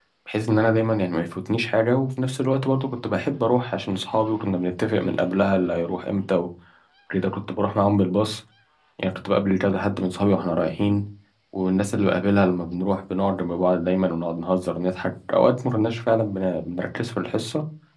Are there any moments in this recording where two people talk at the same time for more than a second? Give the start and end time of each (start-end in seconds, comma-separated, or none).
none